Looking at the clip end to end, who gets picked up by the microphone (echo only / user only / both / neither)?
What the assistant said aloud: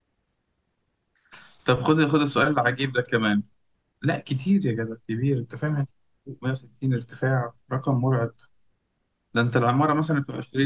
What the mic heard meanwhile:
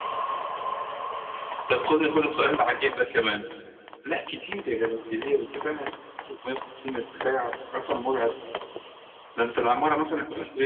echo only